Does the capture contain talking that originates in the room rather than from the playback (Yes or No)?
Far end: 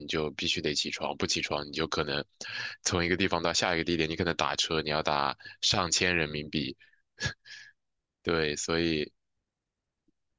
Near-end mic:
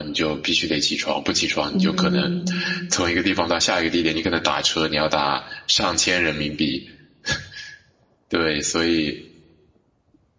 Yes